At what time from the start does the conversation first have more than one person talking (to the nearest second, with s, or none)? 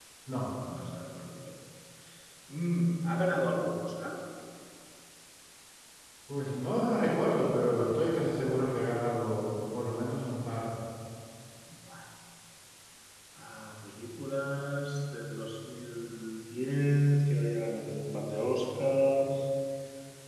none